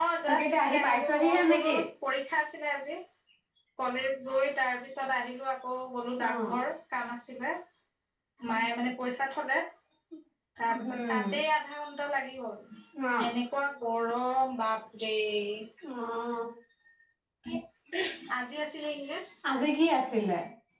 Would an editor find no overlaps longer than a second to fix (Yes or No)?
No